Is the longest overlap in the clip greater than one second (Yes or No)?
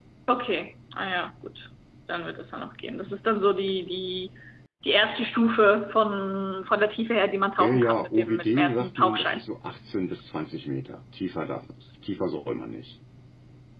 Yes